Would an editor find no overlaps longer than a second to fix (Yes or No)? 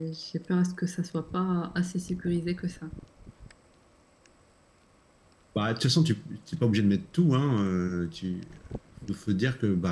Yes